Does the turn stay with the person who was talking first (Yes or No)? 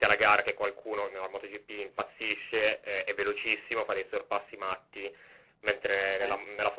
Yes